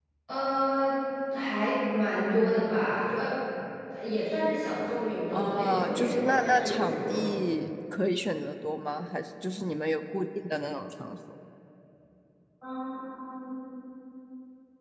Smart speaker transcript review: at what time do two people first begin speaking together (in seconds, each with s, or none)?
5.3 s